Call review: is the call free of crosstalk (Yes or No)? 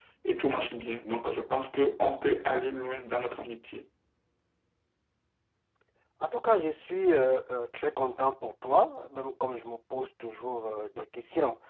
Yes